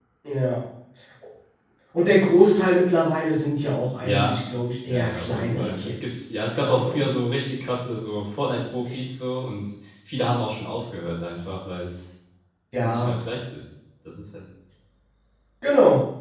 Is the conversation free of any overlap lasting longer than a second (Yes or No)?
No